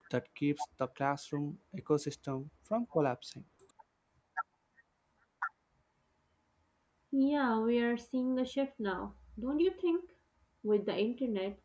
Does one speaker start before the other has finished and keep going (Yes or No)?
No